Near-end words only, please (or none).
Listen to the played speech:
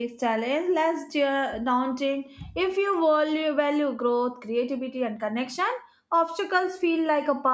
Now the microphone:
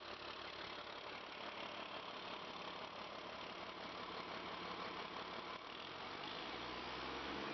none